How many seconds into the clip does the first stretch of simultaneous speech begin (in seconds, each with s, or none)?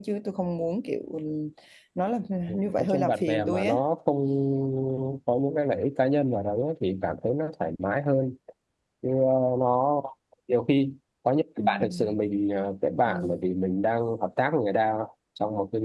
2.6 s